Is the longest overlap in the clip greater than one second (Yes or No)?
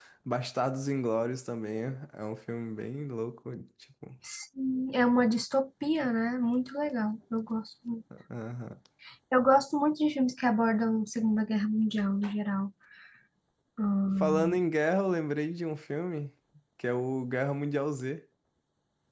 No